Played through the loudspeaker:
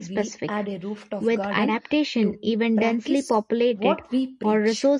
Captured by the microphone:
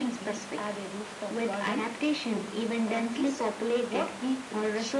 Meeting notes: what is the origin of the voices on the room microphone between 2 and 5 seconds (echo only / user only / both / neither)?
echo only